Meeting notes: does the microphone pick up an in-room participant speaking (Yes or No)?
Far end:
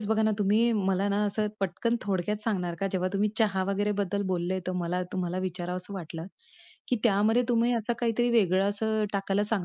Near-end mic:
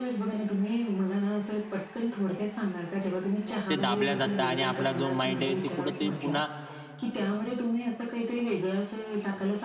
Yes